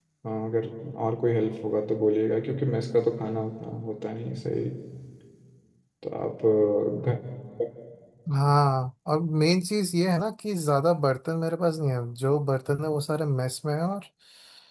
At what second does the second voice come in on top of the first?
none

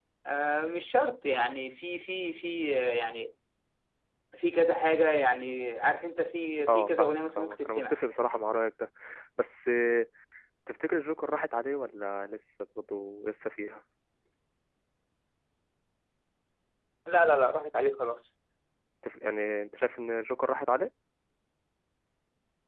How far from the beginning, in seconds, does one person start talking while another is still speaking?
7 s

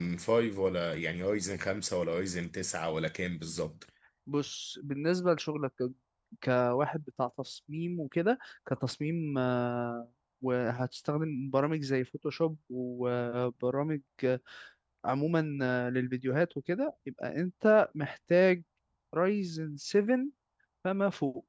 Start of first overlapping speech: none

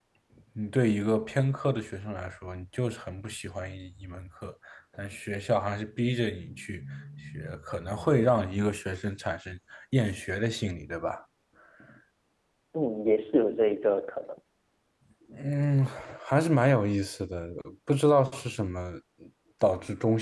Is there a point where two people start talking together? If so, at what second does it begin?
none

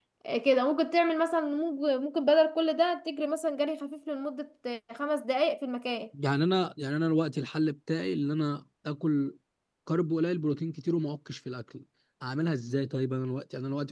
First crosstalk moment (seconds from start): none

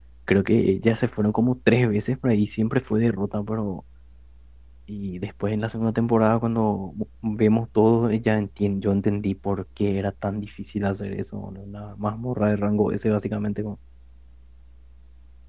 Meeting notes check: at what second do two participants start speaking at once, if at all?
none

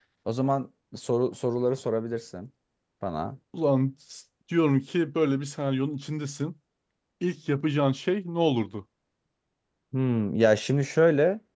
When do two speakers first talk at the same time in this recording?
none

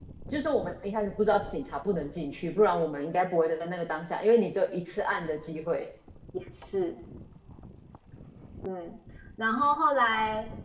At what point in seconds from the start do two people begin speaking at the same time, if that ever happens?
none

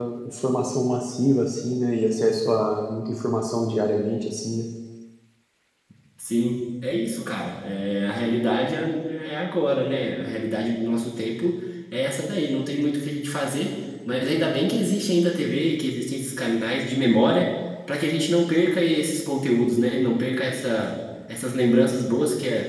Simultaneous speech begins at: none

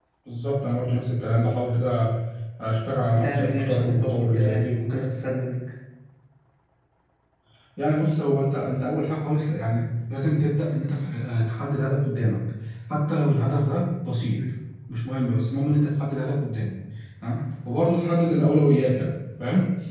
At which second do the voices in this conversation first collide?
3 s

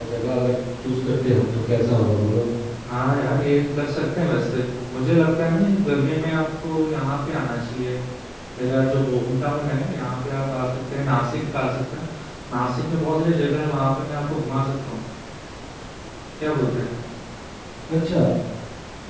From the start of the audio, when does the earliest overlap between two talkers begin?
none

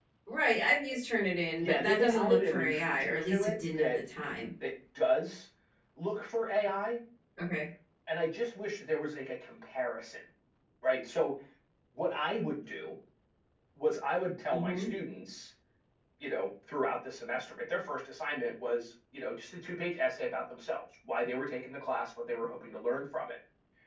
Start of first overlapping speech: 2 s

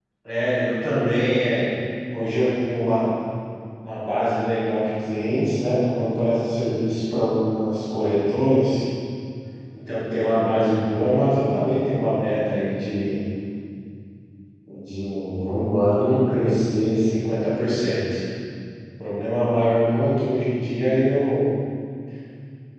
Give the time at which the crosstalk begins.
none

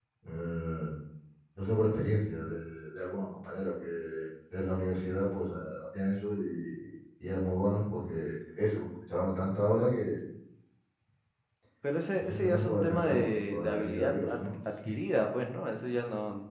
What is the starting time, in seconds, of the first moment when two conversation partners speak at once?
12 s

